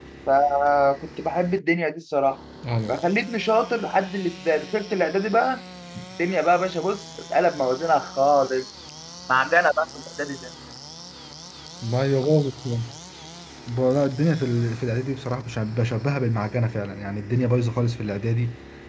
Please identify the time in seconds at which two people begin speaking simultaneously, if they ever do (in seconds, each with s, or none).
none